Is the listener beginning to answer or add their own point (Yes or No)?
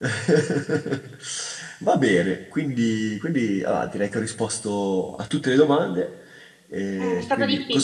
Yes